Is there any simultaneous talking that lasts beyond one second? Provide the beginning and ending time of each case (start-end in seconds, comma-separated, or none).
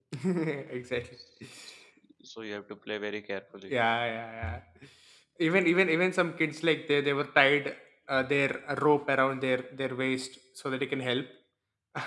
none